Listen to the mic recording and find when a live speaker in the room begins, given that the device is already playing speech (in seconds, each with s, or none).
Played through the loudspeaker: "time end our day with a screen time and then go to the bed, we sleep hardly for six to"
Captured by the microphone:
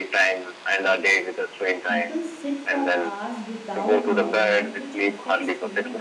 1.8 s